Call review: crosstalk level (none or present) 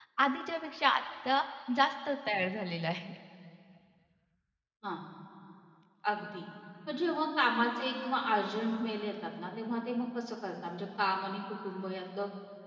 none